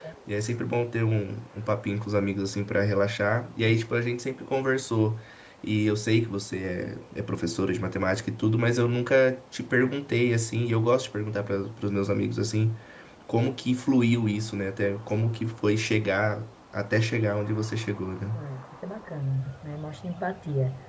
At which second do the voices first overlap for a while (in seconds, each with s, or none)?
none